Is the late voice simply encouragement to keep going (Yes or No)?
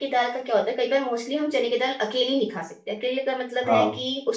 Yes